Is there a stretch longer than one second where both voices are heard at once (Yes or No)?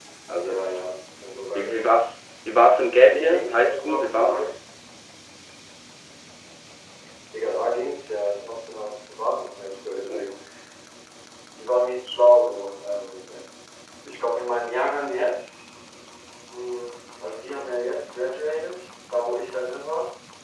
Yes